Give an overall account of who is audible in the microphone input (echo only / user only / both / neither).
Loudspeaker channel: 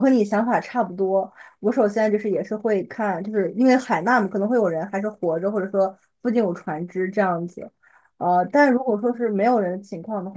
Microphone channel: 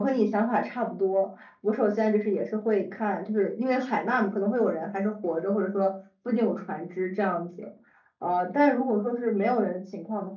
echo only